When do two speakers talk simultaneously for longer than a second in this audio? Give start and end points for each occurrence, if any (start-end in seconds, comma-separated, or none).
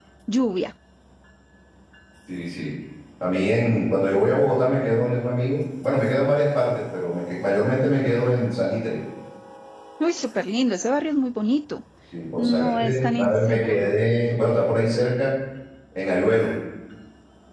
12.4-13.9